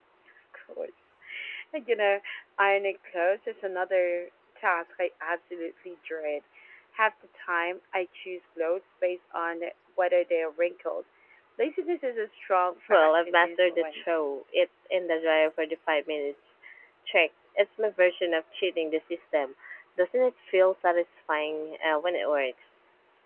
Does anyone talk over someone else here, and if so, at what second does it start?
12.9 s

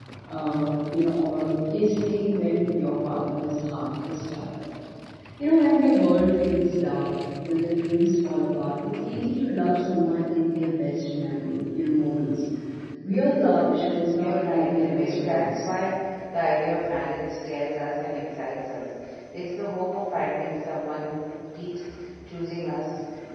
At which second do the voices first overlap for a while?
14.2 s

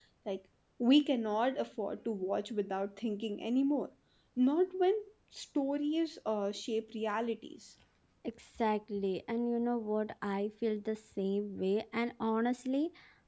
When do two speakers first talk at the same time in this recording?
none

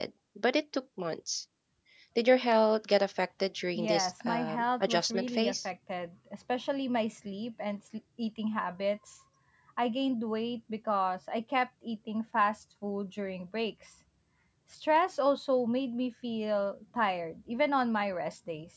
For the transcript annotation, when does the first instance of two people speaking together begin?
3.8 s

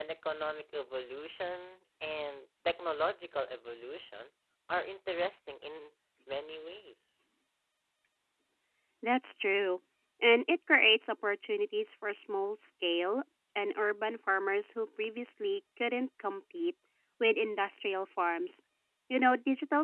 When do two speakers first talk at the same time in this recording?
none

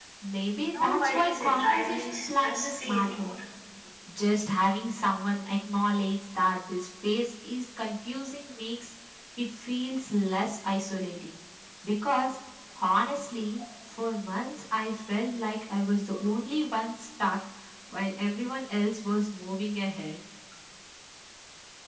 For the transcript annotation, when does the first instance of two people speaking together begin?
0.7 s

